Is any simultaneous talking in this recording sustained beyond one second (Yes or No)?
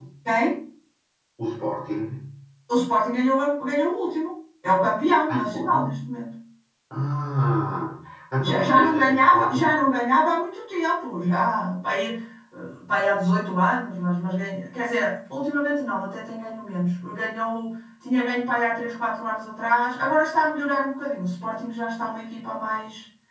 Yes